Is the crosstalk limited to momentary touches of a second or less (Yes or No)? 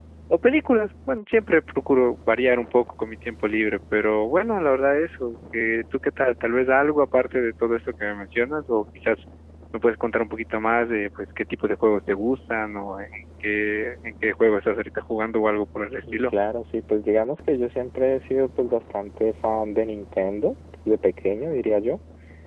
Yes